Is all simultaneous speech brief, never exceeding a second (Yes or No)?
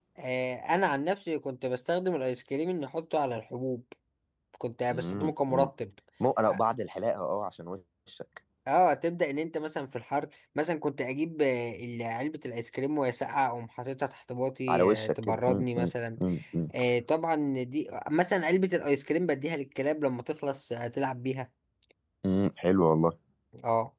No